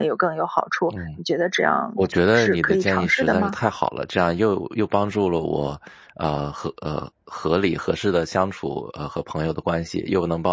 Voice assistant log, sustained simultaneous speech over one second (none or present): present